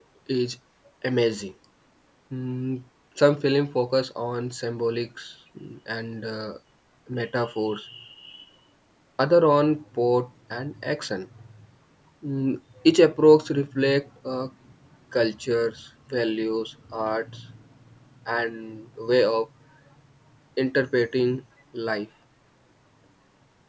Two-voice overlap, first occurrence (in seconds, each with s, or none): none